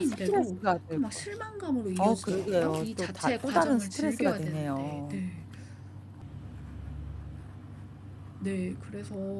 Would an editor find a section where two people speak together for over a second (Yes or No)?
Yes